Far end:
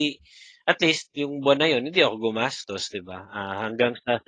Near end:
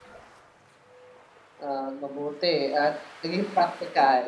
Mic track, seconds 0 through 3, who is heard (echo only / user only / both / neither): user only